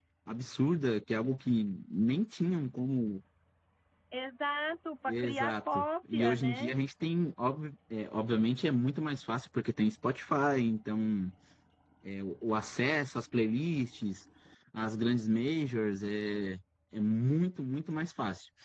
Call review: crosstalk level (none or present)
present